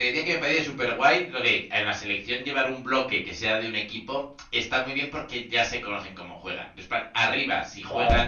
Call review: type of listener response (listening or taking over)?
listening